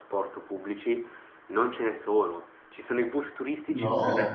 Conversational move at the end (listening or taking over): listening